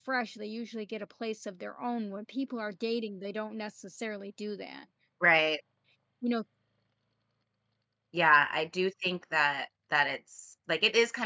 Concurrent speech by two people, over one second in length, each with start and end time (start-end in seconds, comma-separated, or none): none